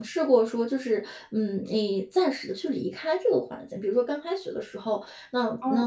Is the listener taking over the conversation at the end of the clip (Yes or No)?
No